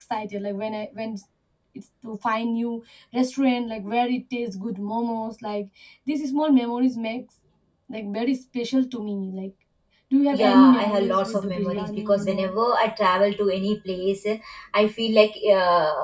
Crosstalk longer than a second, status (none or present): present